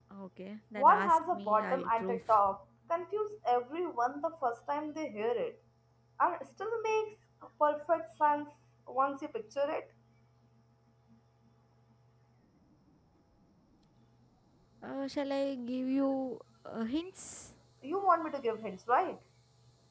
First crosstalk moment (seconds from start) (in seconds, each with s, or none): 0.8 s